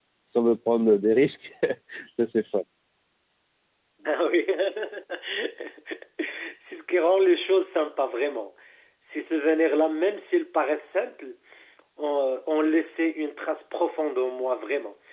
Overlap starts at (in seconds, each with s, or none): none